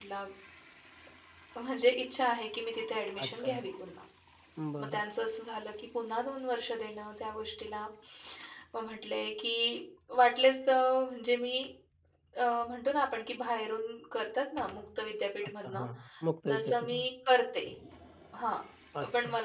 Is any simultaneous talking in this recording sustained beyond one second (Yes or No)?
No